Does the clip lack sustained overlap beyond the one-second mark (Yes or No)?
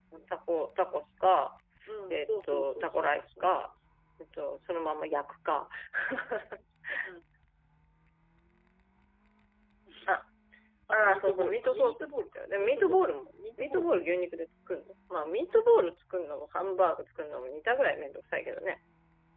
No